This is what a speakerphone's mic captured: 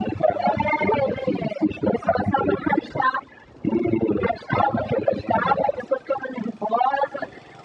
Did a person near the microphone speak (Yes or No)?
No